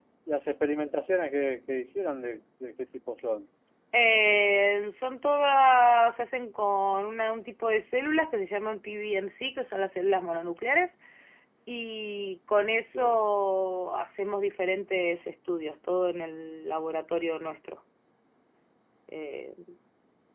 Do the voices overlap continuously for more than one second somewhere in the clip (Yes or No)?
No